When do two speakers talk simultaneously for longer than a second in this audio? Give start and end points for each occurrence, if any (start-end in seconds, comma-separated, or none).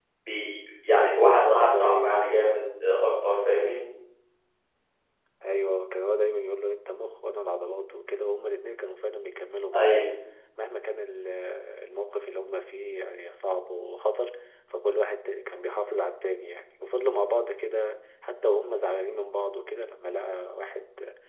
1.1-2.4